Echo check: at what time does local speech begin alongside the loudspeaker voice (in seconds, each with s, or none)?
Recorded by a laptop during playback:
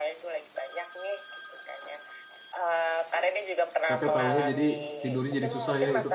3.9 s